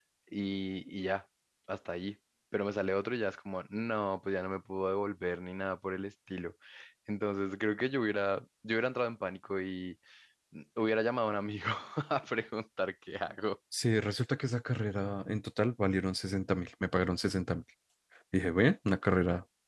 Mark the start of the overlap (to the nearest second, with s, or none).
none